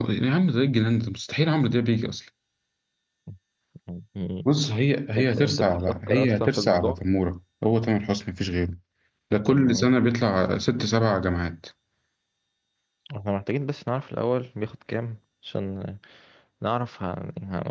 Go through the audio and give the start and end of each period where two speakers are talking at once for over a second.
5.2-7.0

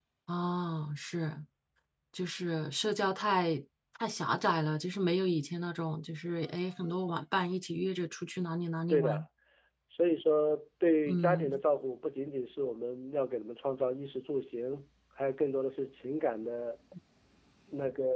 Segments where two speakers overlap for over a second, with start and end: none

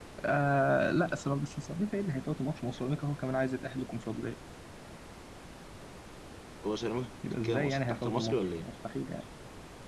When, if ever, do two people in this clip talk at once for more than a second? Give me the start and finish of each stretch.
7.4-8.7

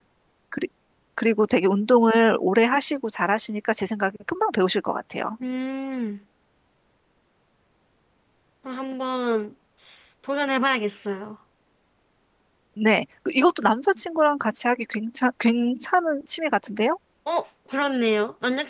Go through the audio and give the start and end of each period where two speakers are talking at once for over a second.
none

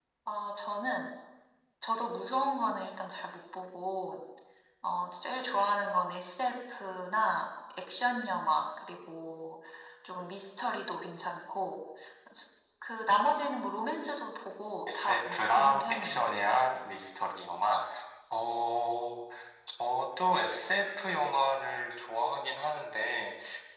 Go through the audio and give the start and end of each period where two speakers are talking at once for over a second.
14.9-16.2

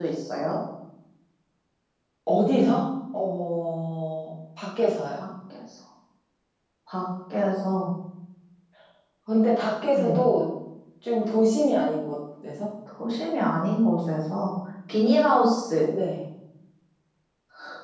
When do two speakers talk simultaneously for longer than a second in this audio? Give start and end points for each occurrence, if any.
none

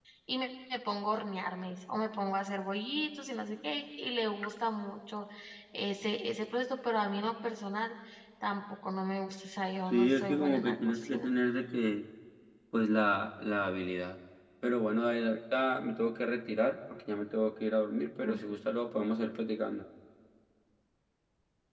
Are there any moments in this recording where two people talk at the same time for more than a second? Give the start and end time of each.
9.9-11.3

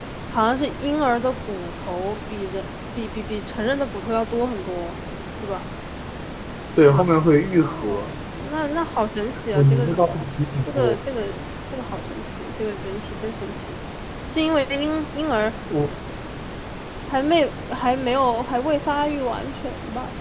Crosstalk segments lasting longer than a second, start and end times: none

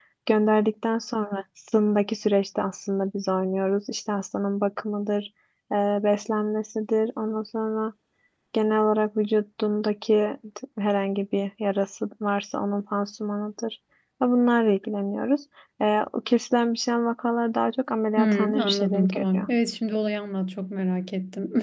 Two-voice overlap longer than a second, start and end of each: 18.2-19.5

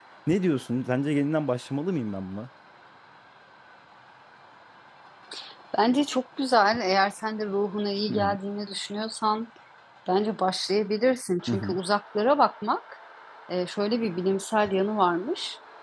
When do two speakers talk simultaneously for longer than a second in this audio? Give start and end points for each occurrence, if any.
none

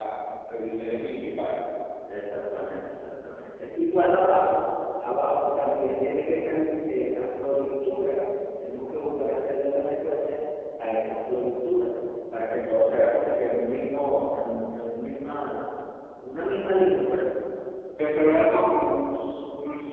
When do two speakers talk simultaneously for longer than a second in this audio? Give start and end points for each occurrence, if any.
none

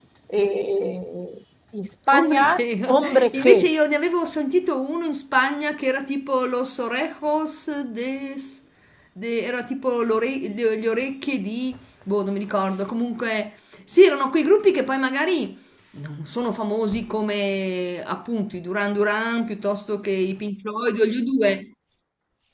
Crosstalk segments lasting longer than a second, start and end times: 2.1-3.7

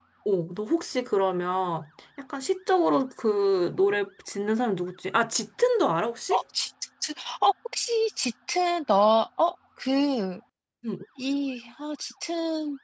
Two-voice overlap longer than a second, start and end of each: none

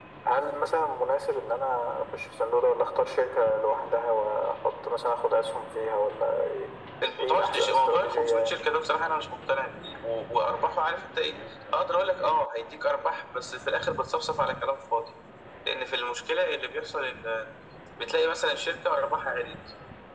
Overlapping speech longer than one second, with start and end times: 7.2-8.5

